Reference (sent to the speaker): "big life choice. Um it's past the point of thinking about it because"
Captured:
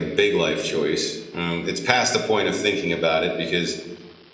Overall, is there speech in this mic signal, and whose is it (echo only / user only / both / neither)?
echo only